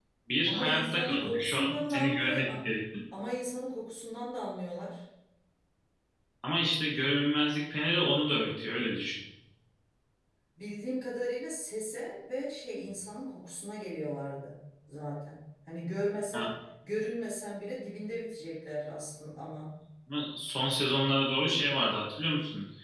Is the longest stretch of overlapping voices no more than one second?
No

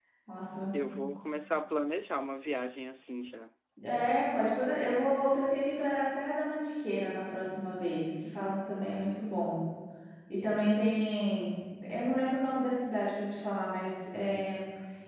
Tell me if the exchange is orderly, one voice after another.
Yes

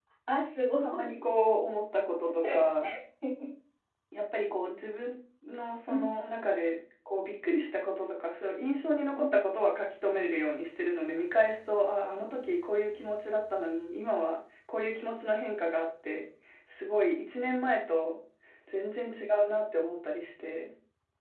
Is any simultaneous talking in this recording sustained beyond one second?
No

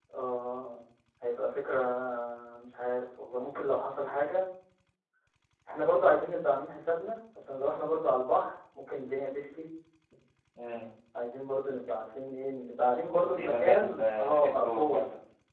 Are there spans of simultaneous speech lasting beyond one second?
Yes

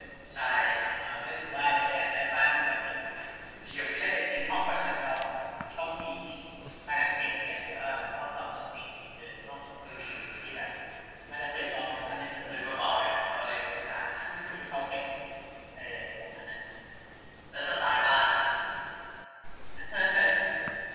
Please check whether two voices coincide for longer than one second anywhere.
No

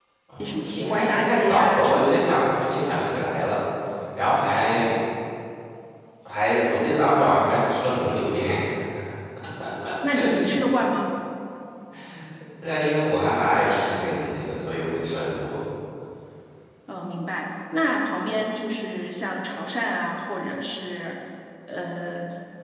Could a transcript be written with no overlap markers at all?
No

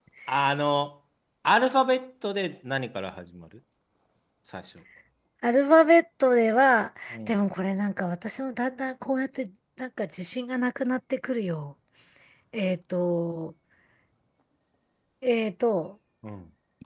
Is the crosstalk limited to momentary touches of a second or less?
Yes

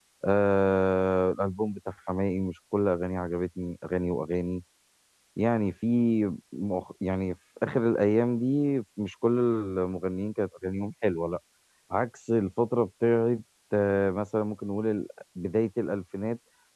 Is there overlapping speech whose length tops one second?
No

